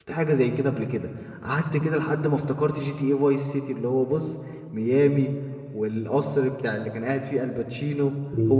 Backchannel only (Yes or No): No